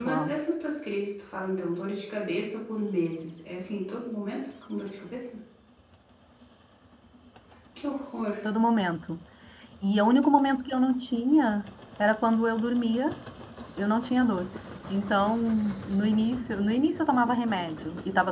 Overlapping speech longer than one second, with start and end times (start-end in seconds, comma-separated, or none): none